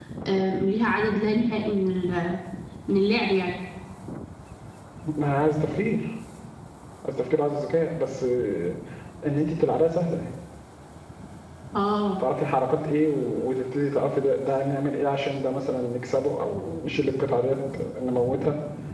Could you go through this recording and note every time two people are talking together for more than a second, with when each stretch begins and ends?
none

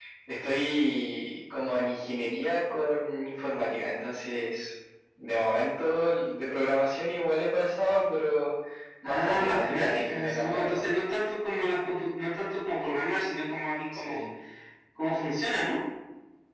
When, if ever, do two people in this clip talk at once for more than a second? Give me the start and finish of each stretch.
9.0-10.8

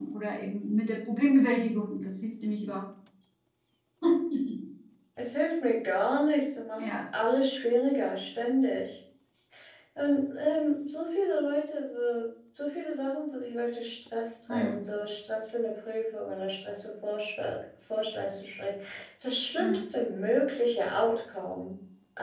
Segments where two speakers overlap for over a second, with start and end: none

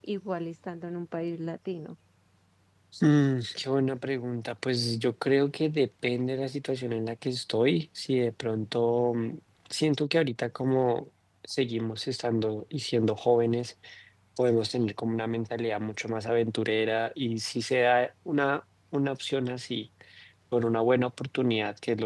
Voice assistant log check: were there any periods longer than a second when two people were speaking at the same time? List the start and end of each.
none

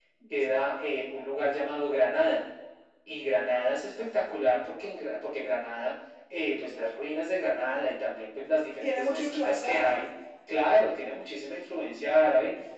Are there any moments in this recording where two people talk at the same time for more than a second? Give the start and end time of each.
8.8-10.0

